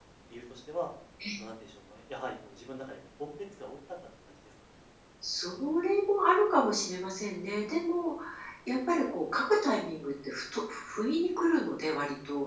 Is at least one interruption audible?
No

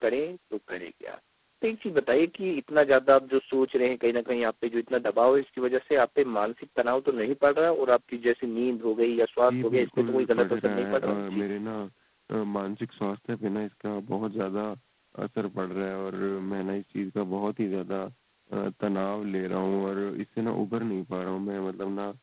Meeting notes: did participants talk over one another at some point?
Yes, from 9.5 s

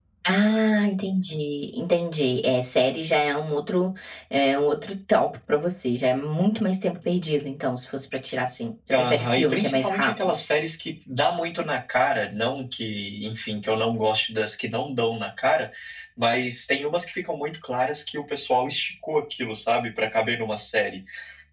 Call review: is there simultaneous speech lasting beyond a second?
Yes, from 8.9 s

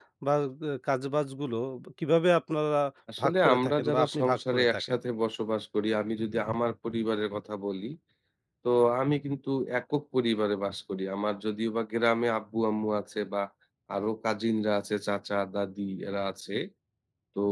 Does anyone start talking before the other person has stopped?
Yes, from 3.2 s

